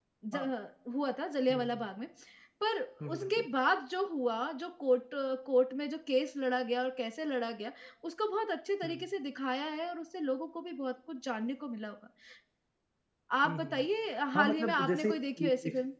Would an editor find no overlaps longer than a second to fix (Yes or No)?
No